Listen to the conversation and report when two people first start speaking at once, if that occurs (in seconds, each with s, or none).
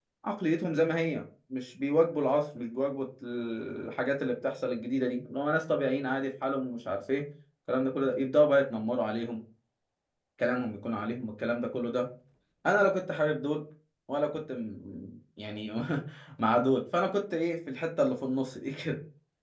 none